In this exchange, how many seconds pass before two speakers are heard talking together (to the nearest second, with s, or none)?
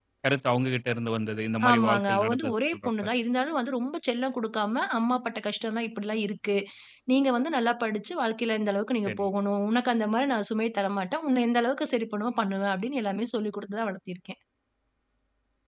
2 s